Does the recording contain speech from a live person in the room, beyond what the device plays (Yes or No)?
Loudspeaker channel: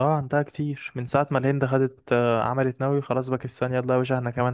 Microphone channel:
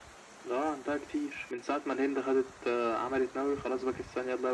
No